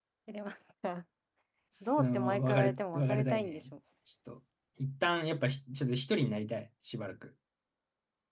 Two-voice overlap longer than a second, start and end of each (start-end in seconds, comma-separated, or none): 2.0-3.6